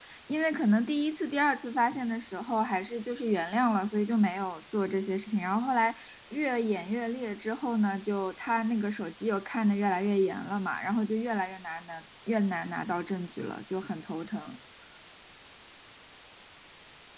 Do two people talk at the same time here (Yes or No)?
No